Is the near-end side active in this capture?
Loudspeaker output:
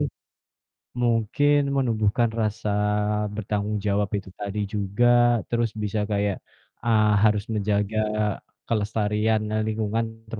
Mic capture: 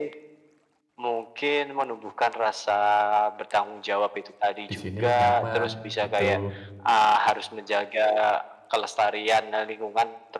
Yes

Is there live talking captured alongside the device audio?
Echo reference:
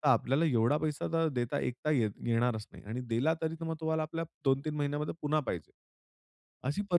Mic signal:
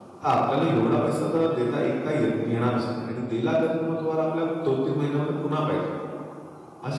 No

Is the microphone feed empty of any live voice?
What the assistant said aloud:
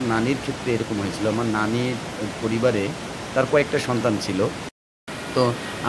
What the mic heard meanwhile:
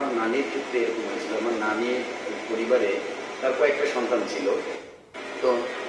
Yes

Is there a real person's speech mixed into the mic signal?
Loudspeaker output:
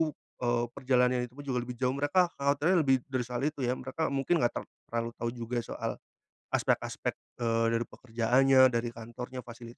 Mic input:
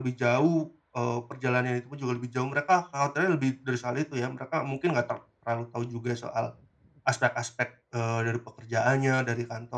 No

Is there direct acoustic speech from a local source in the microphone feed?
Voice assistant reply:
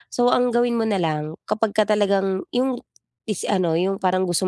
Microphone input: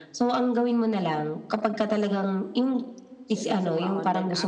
Yes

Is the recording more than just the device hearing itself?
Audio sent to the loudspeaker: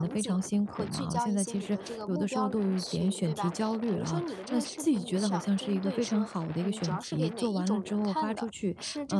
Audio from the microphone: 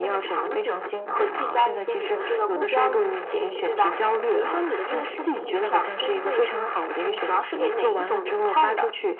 No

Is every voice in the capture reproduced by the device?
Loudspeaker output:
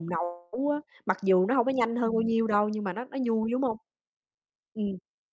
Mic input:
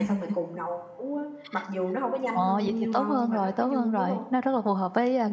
No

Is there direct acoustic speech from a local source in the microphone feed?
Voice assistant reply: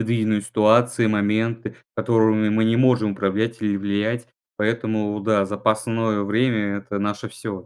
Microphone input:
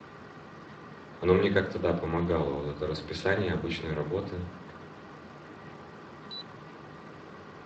Yes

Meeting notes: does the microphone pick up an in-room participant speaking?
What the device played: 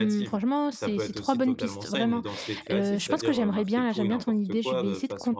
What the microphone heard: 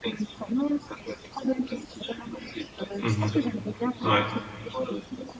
Yes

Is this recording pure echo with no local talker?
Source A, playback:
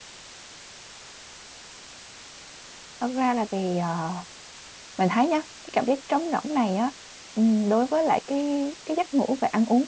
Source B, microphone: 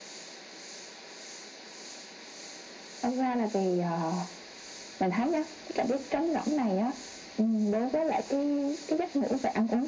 Yes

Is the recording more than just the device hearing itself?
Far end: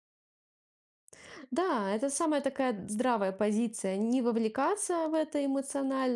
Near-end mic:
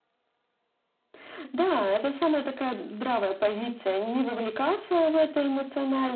No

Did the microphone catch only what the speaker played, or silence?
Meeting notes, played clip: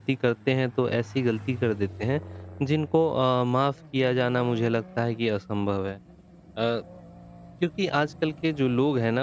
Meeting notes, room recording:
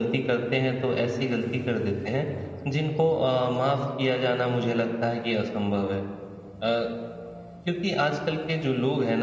Yes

